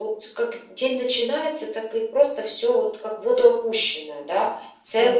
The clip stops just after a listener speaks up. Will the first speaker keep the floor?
No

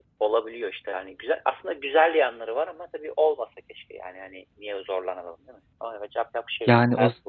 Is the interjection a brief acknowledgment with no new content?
No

